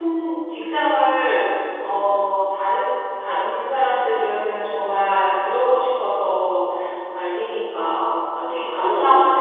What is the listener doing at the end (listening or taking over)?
listening